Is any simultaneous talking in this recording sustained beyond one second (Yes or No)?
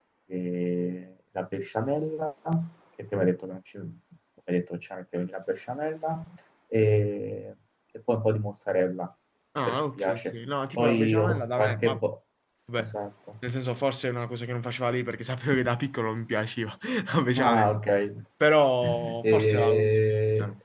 Yes